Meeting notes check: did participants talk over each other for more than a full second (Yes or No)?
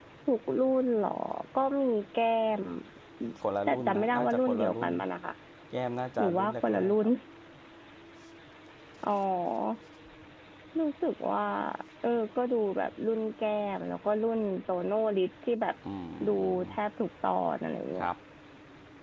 Yes